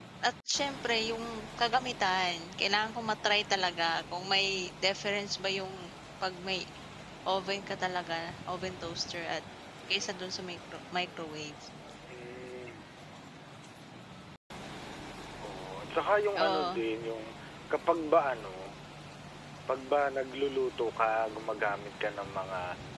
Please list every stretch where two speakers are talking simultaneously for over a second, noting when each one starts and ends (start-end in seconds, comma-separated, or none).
none